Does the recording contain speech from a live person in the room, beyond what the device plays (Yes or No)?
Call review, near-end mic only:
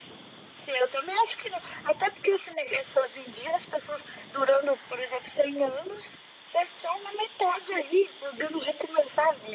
No